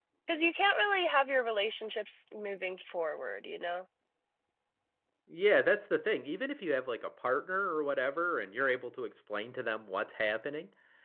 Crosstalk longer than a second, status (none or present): none